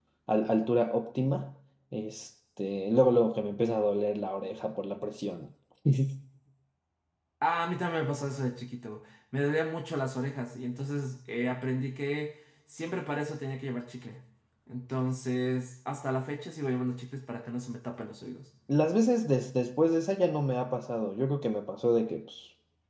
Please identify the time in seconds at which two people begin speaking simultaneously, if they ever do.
none

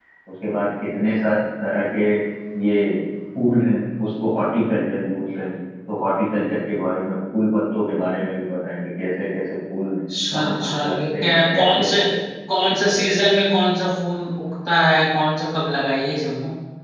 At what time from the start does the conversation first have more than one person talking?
10.3 s

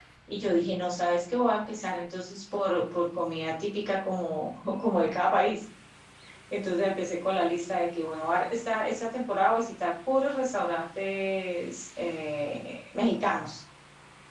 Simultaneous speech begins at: none

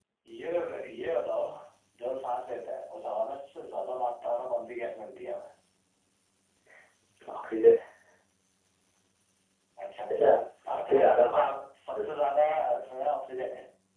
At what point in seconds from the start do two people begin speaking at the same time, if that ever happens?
10.1 s

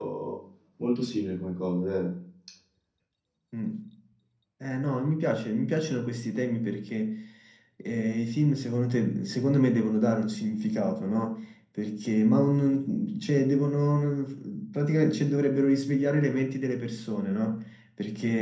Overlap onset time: none

